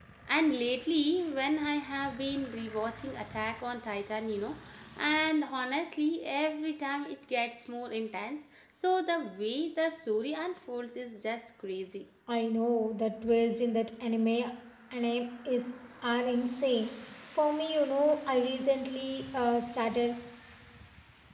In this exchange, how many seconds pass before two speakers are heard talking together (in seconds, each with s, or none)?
none